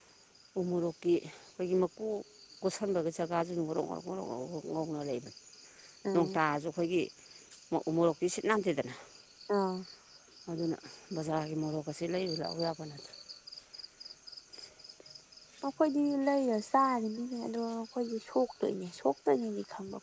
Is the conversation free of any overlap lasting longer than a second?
Yes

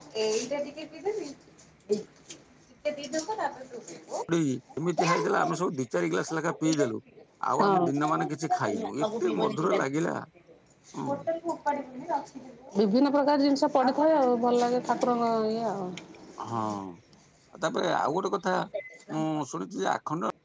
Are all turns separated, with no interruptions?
No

